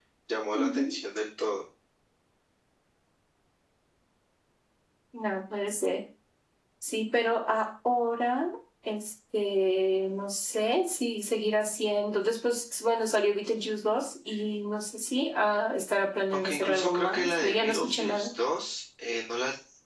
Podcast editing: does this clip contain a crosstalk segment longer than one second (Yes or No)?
Yes